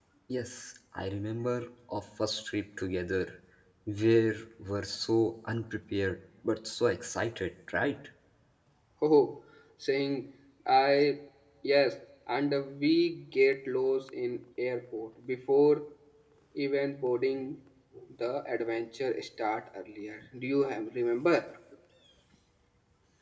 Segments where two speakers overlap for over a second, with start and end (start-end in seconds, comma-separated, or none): none